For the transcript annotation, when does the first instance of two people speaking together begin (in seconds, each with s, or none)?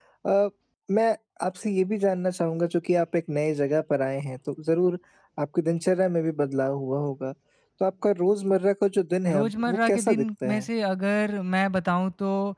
9.3 s